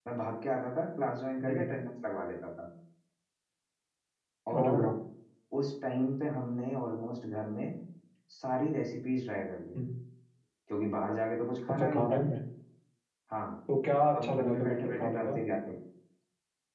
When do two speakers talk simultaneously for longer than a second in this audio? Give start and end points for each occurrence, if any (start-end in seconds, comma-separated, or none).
14.2-15.4